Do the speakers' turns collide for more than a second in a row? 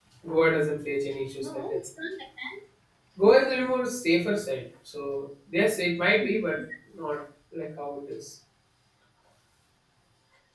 No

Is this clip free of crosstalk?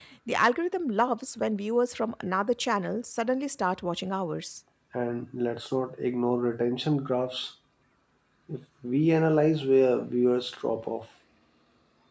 Yes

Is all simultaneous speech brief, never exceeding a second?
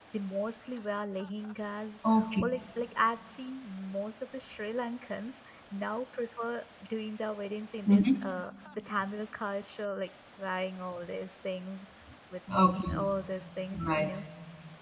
Yes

